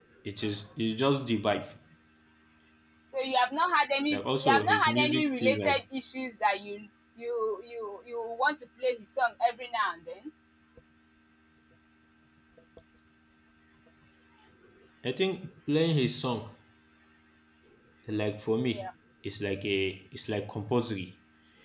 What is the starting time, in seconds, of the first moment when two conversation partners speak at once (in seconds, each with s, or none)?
4.1 s